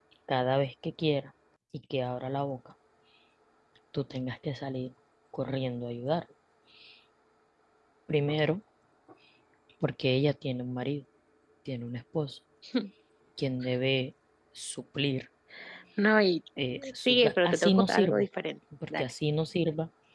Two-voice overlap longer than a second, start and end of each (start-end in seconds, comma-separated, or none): 17.1-18.3